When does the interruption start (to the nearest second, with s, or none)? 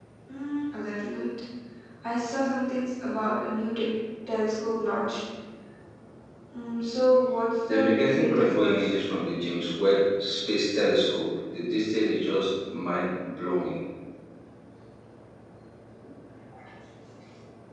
8 s